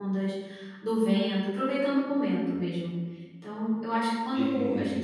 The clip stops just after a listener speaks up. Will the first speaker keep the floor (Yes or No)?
Yes